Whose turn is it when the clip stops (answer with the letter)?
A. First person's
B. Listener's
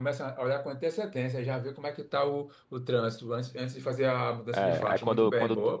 B